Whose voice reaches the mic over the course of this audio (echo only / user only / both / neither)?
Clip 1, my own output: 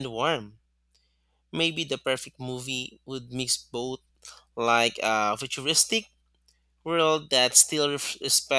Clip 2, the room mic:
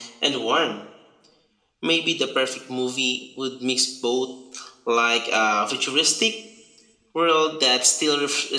echo only